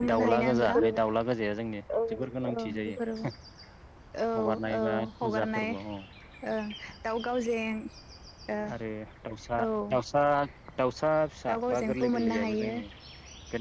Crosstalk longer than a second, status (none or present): present